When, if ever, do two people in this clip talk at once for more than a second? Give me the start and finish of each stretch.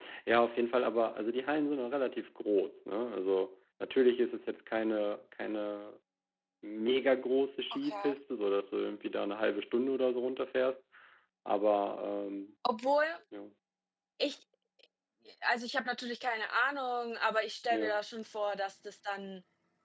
none

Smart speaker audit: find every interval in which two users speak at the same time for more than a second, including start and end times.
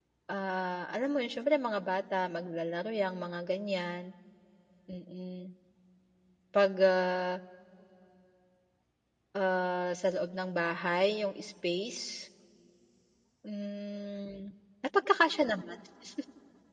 none

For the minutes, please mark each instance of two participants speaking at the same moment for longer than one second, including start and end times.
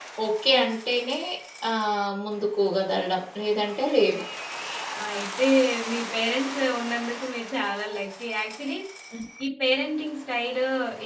none

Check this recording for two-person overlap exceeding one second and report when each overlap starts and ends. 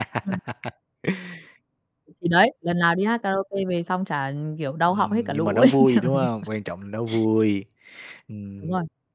4.9-6.3

